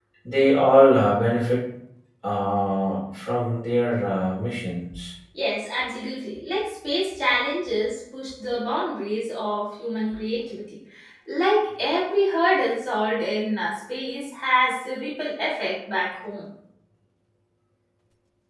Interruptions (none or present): none